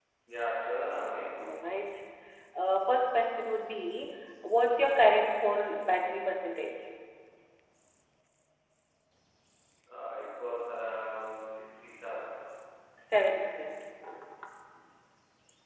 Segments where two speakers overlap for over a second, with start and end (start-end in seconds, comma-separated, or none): none